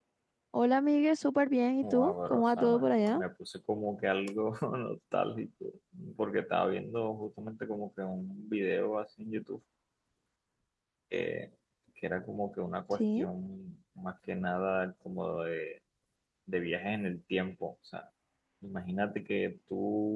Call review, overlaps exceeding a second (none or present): present